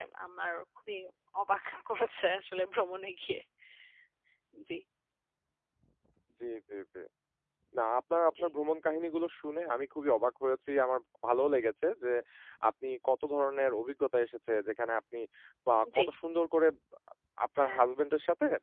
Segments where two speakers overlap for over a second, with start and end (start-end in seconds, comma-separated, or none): none